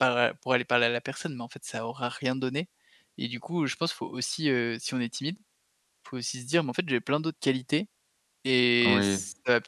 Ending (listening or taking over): listening